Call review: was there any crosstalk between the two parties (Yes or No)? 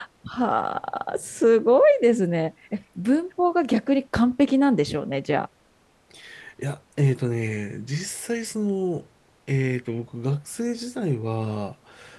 No